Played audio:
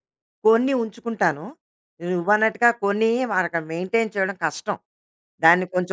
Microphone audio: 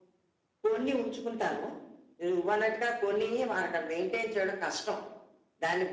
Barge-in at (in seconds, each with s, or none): none